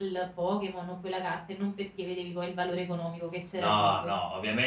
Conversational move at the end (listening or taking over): taking over